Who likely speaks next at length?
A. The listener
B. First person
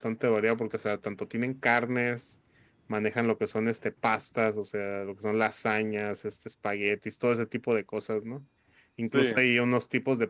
B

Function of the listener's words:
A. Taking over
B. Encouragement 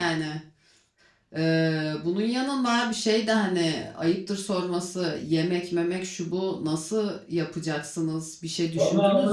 A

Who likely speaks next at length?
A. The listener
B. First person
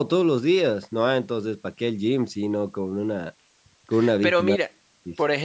A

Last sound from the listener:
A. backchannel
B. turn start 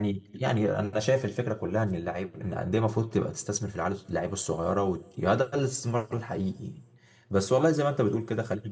A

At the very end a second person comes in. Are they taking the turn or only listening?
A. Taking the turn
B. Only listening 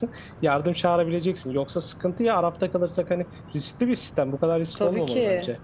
A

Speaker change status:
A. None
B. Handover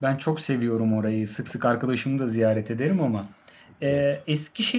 A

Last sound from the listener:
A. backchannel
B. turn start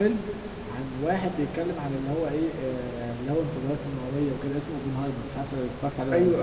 B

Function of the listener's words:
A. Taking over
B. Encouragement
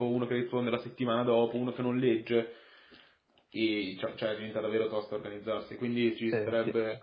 A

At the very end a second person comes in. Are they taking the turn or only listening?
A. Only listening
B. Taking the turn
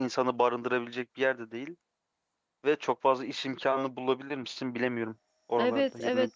B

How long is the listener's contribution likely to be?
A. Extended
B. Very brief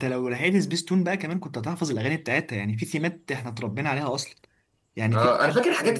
A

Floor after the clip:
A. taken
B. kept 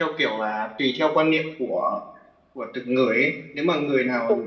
B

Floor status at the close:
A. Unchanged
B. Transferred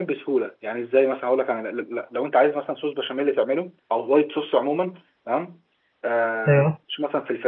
A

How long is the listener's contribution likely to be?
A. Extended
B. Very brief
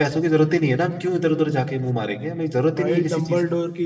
A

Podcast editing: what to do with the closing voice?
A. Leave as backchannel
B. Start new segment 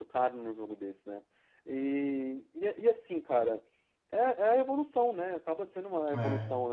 A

